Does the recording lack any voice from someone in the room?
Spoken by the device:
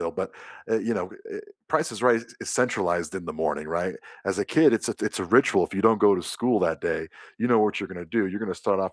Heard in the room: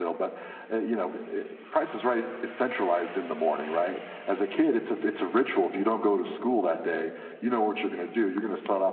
Yes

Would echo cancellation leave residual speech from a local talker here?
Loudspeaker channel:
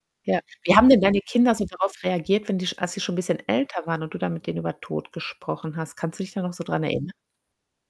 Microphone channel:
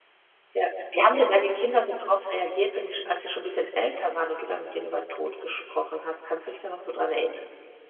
No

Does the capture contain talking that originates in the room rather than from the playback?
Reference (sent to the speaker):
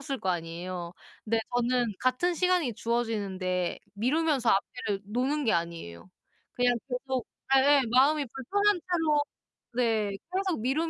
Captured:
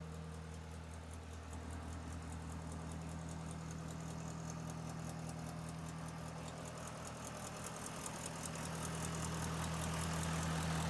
No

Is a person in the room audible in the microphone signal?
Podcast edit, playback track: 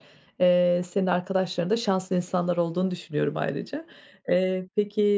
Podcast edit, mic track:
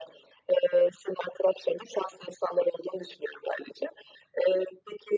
No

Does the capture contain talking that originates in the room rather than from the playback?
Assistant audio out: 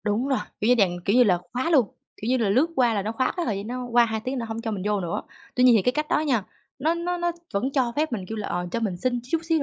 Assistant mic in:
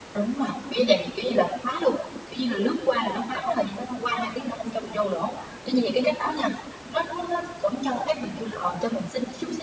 No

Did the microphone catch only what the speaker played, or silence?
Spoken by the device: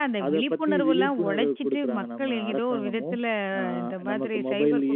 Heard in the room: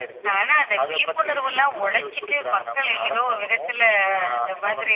Yes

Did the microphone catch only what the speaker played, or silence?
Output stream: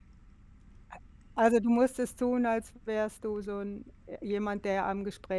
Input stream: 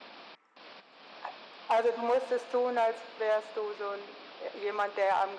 Yes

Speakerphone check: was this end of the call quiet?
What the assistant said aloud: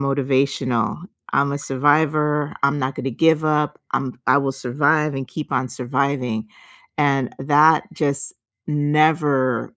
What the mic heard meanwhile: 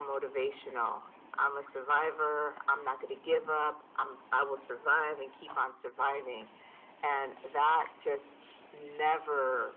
Yes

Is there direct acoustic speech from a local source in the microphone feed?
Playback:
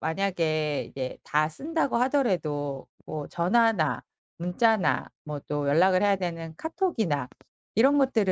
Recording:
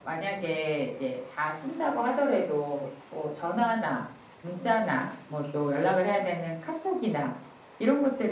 No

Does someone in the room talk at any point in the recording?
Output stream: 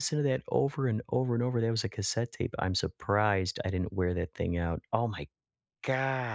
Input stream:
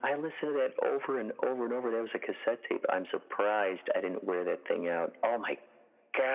No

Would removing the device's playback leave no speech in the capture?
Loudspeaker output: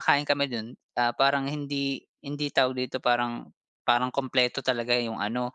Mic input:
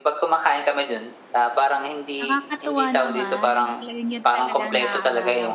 No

